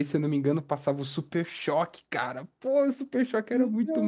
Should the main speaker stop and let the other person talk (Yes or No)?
Yes